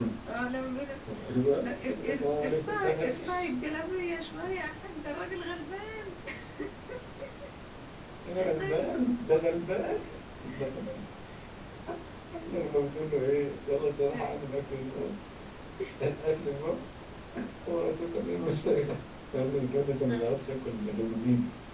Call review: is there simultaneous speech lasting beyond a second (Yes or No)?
Yes